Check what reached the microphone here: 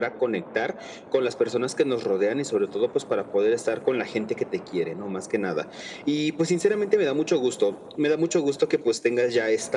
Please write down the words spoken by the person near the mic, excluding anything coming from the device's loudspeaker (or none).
none